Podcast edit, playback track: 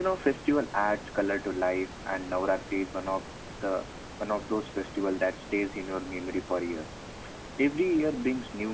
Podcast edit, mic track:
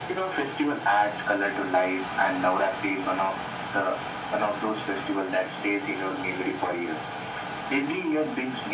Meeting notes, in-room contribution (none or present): none